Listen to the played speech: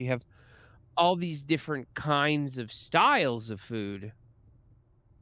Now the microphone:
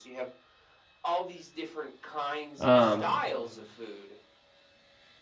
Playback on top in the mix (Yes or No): No